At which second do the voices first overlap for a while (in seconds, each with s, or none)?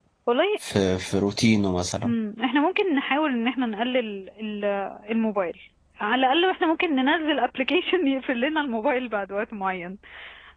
none